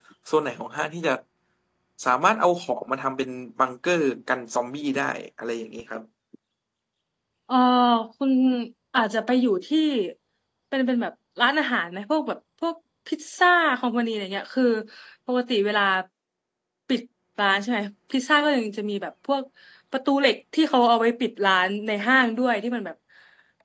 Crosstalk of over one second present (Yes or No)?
No